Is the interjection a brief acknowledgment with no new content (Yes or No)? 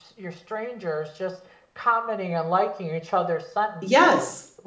No